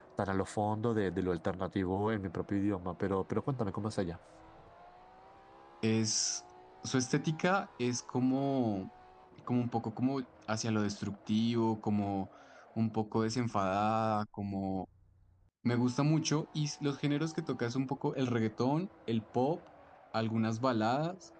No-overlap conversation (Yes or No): Yes